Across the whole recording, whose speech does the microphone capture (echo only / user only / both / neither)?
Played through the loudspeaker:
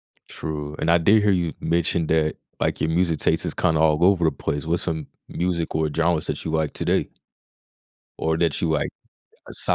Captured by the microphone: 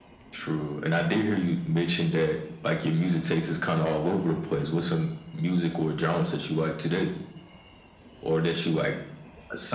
echo only